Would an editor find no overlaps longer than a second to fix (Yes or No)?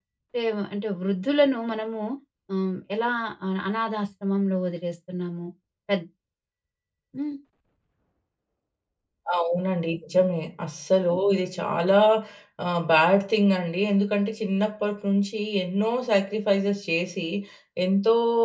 Yes